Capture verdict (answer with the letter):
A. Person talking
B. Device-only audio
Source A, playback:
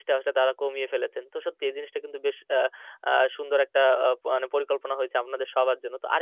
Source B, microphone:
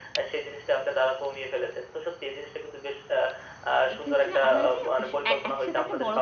A